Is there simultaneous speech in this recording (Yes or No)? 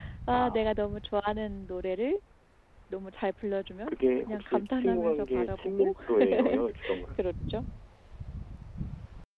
Yes